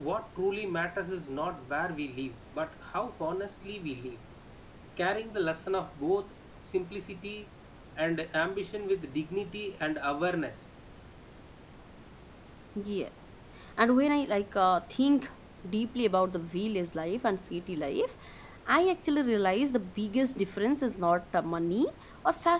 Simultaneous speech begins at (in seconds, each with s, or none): none